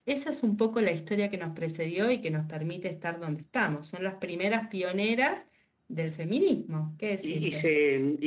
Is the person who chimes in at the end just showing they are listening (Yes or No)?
No